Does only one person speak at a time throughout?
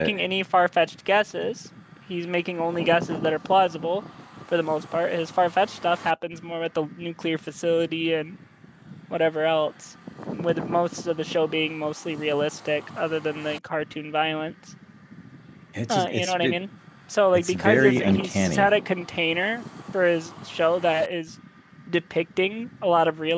No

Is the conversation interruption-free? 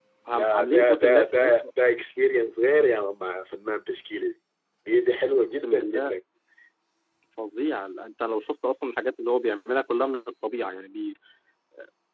No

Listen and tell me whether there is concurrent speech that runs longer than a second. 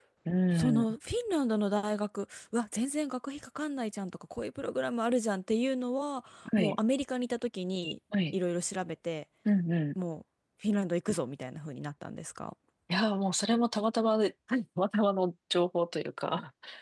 No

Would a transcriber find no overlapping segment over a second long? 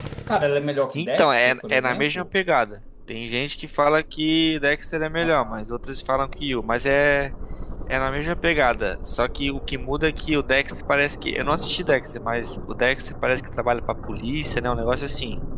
No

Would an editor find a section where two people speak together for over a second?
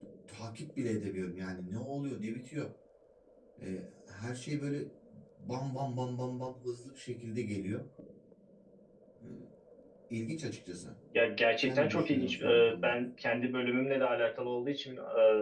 Yes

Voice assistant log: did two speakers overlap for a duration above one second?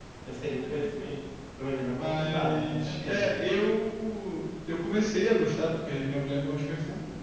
Yes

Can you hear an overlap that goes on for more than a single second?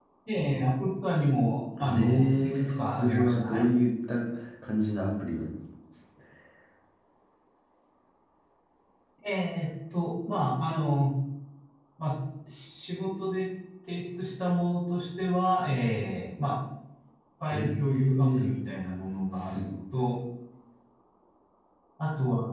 Yes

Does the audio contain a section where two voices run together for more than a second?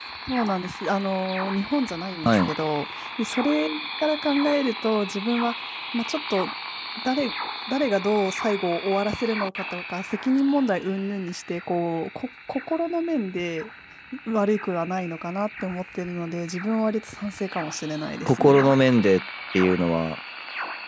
No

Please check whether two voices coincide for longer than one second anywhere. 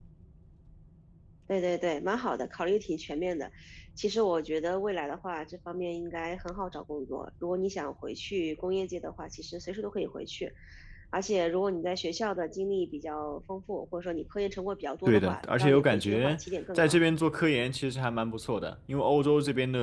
Yes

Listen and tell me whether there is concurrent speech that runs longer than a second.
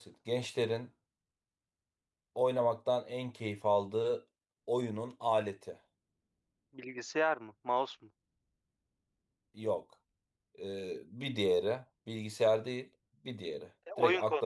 No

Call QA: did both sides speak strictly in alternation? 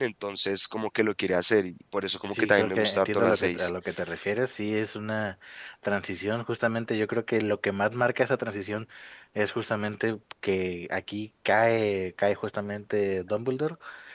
No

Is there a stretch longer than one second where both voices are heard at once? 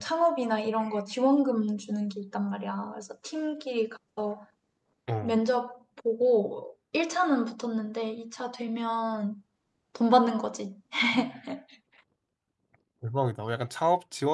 No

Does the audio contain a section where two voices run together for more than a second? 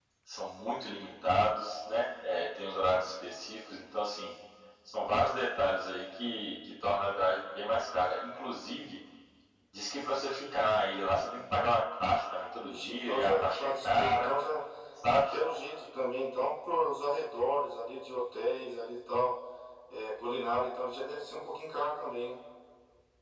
Yes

